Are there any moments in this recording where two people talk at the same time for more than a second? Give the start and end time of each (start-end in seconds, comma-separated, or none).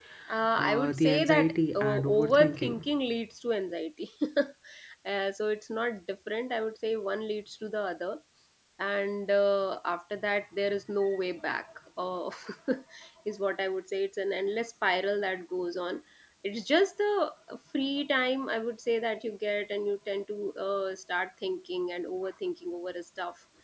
0.6-2.8